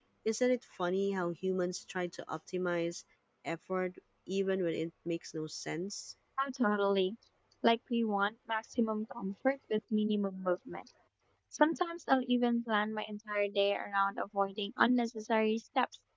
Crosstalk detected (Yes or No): No